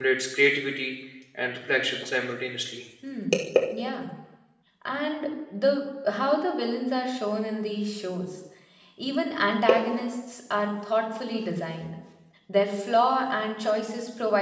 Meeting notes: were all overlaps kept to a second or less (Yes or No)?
Yes